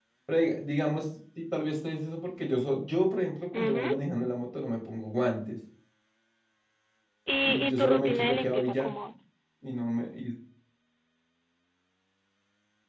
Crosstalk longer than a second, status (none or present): present